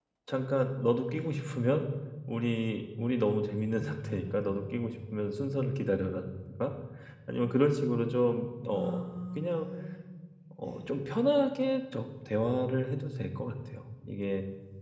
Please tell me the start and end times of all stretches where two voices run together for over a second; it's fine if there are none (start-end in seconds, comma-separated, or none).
none